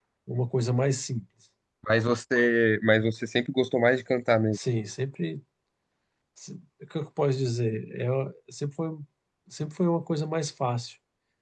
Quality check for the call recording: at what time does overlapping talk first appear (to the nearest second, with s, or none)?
none